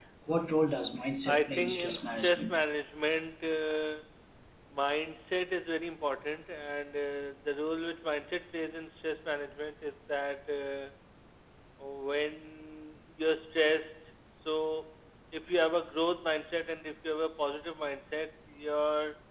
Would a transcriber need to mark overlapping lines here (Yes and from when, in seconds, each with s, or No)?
Yes, from 1.3 s